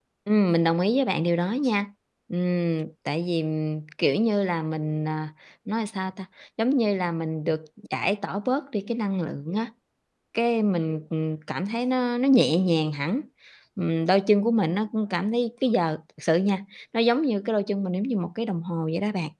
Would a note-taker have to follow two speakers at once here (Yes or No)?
No